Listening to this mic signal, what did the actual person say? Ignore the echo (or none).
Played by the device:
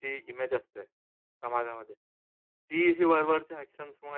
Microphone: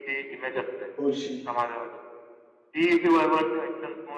बोलशील,